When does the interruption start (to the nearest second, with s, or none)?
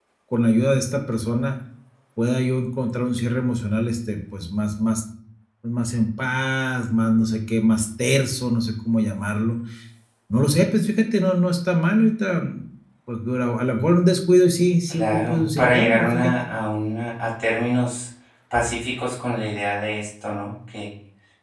15 s